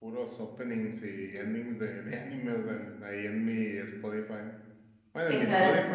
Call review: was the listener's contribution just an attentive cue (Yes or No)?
Yes